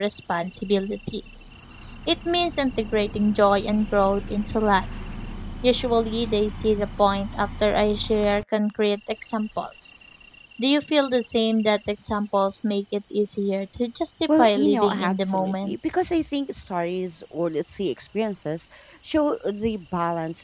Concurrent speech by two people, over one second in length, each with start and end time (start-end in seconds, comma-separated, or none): 14.4-15.8